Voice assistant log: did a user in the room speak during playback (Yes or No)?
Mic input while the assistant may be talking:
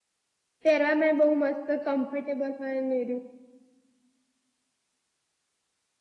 Yes